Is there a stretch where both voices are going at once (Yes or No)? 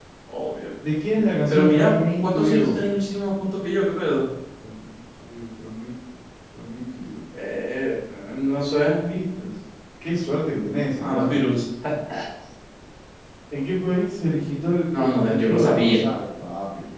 Yes